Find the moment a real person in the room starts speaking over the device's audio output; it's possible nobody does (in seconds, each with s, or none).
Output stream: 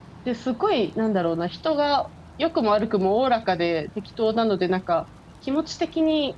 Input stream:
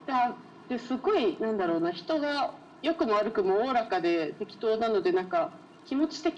none